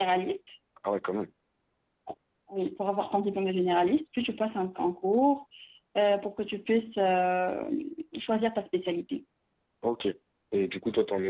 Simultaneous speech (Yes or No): No